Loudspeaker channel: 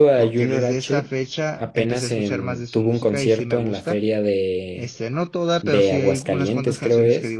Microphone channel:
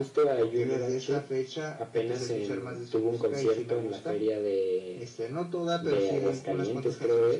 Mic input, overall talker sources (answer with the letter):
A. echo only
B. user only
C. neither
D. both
A